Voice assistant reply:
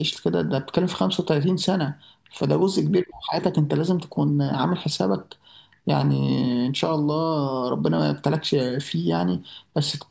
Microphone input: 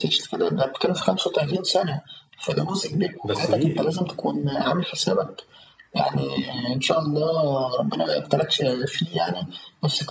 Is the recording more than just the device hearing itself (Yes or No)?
Yes